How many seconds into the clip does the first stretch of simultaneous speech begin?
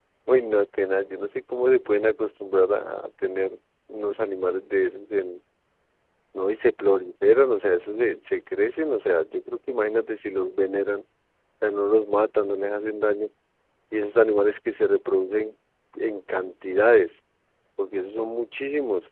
none

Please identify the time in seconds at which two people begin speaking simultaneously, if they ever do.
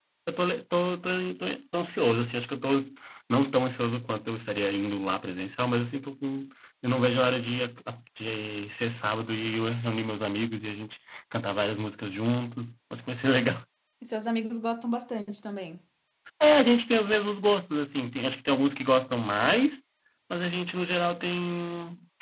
none

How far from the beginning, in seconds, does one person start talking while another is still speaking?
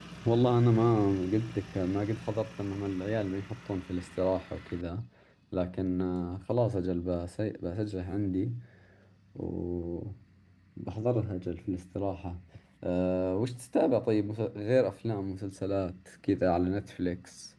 none

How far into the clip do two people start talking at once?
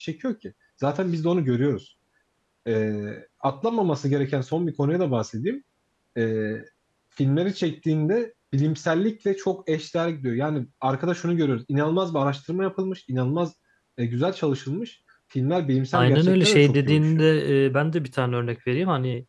15.9 s

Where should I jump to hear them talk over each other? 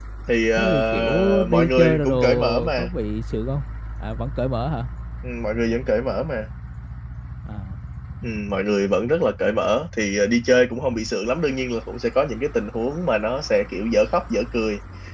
0.5 s

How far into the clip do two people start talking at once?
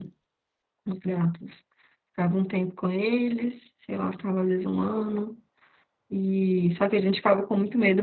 none

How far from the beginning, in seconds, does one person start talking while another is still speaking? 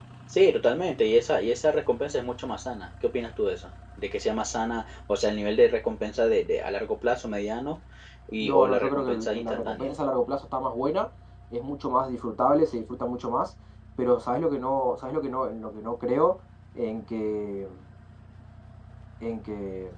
8.4 s

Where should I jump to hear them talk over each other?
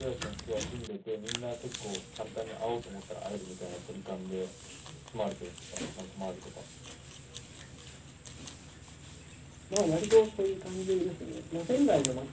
none

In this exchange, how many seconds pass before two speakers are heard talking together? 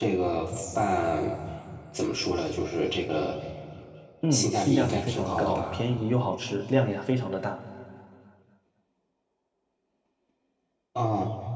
4.3 s

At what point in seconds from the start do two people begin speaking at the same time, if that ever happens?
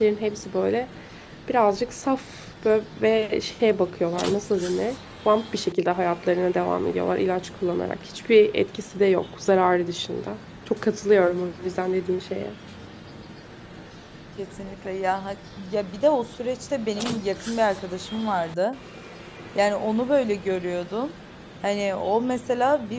none

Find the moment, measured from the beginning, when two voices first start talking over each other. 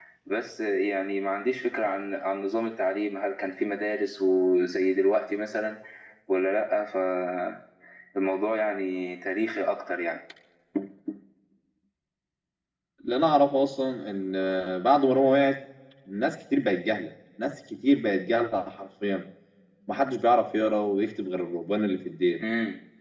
none

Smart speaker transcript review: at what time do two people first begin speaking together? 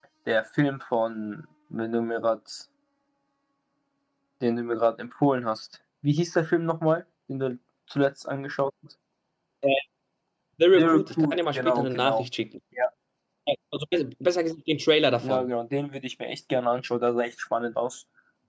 10.8 s

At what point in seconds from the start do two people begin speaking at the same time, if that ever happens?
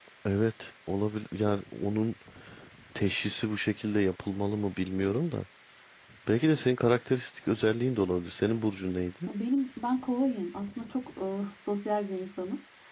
none

